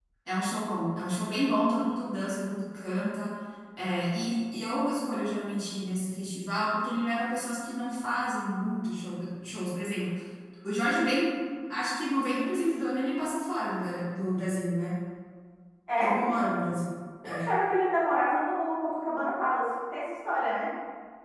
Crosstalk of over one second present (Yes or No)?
No